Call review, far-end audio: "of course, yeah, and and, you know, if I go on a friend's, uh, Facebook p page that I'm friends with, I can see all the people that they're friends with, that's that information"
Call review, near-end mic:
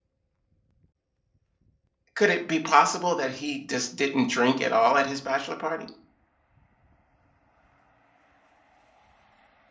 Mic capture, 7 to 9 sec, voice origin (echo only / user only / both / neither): neither